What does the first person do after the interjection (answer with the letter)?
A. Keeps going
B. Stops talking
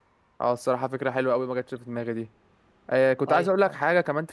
A